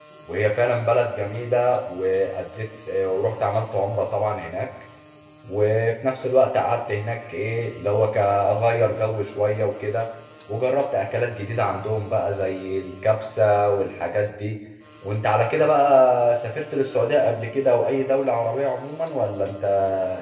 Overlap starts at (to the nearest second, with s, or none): none